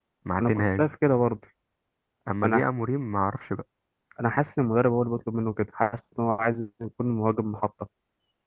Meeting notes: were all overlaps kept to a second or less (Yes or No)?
Yes